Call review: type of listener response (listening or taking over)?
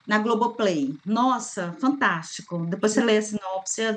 listening